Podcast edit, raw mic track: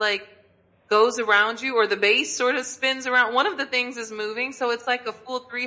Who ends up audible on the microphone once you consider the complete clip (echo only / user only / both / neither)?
echo only